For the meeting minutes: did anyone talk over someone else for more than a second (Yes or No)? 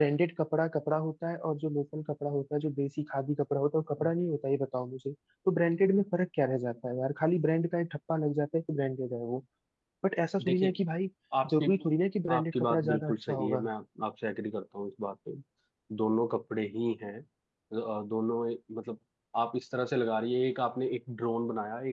Yes